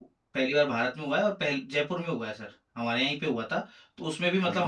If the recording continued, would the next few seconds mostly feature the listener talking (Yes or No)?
No